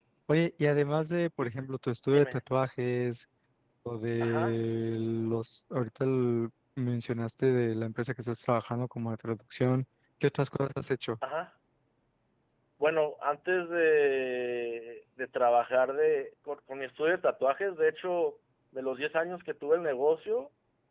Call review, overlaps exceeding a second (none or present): none